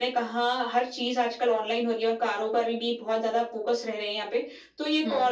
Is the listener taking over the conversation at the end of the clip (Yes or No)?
No